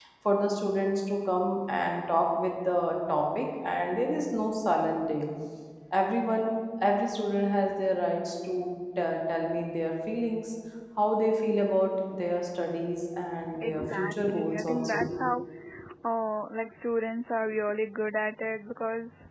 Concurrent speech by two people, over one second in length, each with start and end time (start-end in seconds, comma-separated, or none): 13.6-15.0